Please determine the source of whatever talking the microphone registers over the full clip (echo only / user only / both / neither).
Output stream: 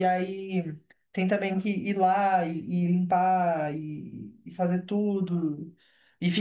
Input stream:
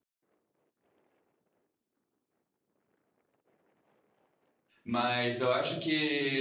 user only